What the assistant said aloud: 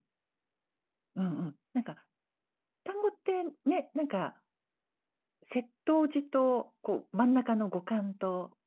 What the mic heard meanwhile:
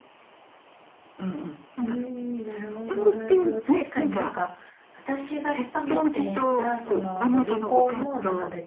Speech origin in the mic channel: both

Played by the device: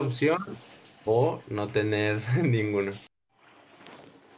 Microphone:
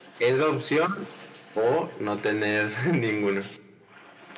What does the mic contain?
echo only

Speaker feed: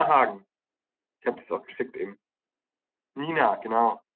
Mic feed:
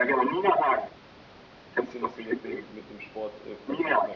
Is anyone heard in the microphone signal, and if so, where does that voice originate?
both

